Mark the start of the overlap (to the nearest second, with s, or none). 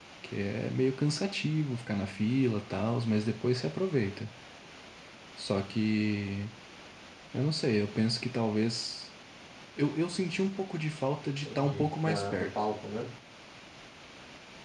11 s